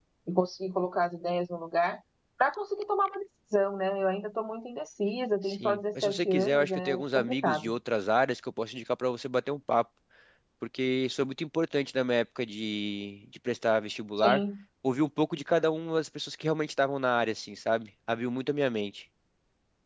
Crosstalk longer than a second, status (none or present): present